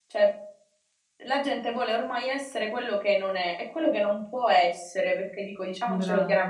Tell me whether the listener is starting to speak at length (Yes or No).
No